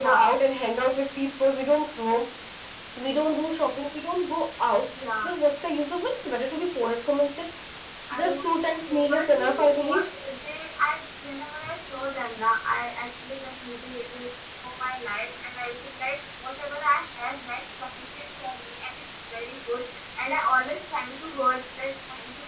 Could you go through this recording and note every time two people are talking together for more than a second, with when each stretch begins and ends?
8.2-10.0

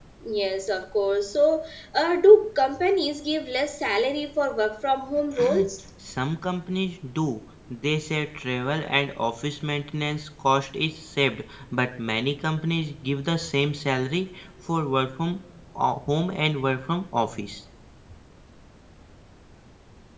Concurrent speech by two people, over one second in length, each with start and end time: none

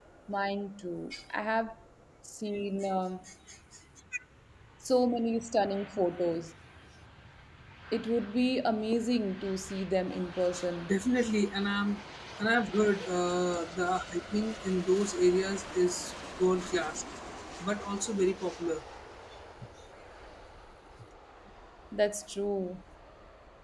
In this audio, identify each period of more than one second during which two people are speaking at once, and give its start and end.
none

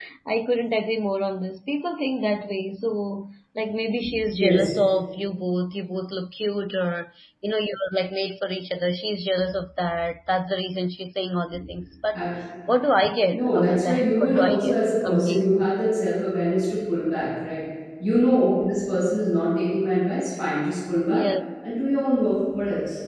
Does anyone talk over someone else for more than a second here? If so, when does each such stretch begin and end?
13.3-15.7

